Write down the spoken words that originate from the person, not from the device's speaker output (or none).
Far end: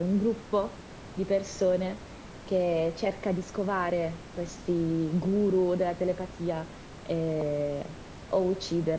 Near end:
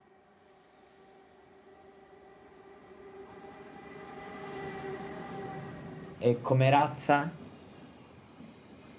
e come razza